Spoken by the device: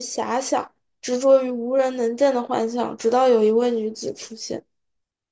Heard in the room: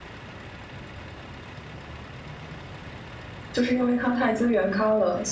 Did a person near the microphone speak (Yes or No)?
Yes